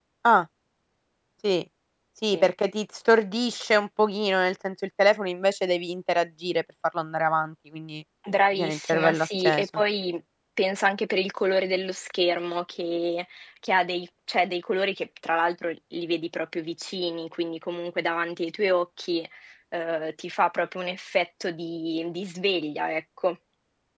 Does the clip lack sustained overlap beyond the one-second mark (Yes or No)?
No